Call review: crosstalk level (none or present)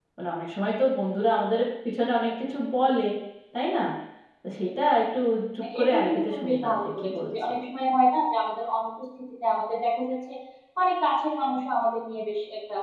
present